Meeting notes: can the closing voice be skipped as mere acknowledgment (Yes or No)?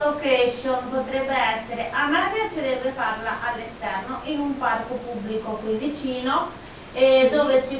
Yes